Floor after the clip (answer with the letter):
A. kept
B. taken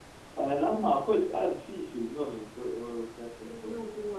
B